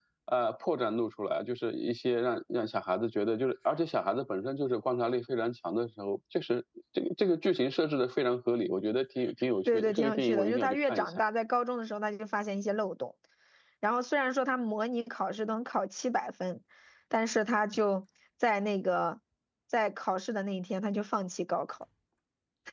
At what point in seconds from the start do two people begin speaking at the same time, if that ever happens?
10 s

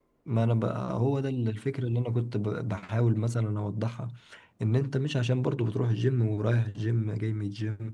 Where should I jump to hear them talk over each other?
none

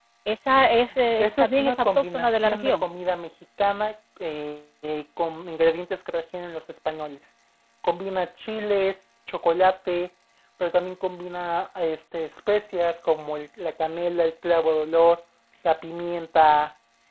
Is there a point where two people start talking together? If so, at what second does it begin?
1 s

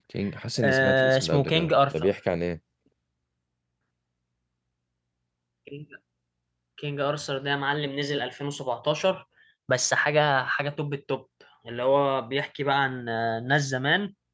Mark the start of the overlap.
1 s

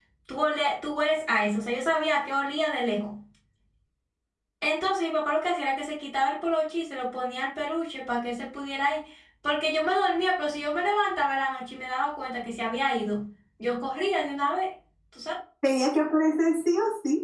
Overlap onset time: none

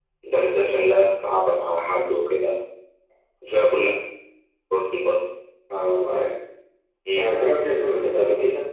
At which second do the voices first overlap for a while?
none

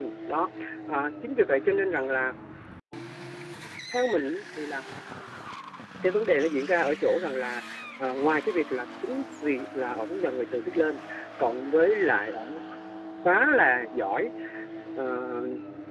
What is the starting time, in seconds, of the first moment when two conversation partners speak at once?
none

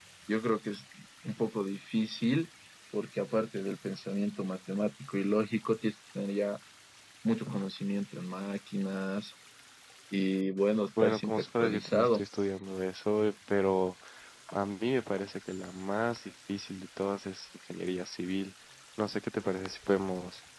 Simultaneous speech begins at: 11 s

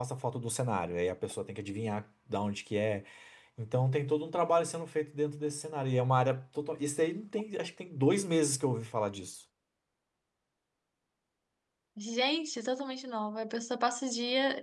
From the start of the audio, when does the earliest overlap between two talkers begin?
none

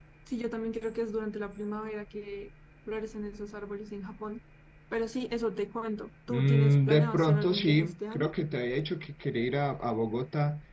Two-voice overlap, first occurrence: 6 s

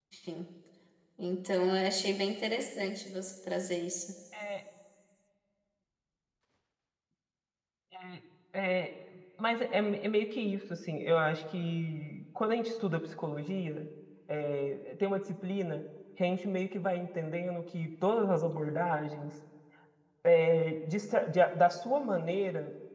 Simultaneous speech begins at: none

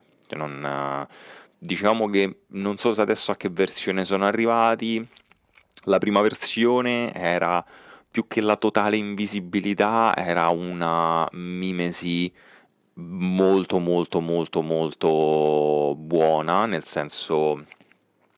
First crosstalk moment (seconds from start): none

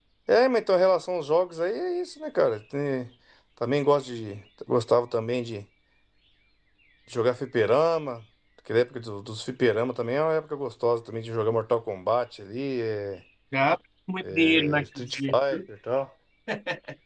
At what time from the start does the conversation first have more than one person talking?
14 s

